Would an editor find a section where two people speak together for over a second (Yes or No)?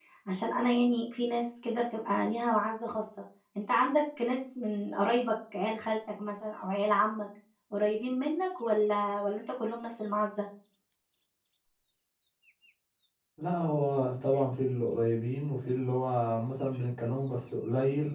No